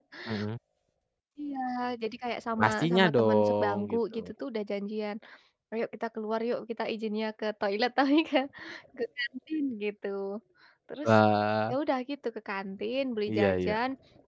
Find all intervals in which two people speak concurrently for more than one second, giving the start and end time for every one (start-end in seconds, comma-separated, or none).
2.6-4.3